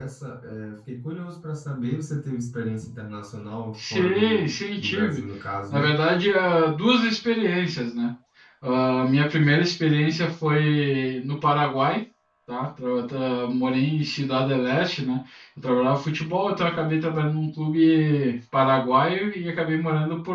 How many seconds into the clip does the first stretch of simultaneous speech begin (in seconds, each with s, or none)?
3.8 s